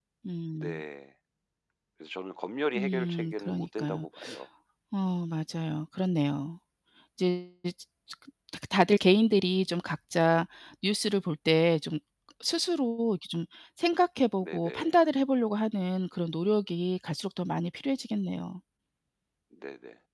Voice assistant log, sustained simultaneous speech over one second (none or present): present